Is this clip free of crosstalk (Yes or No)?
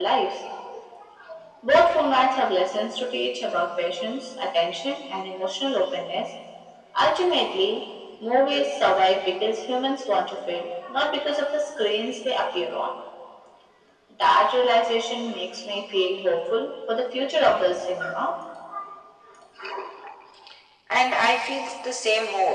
Yes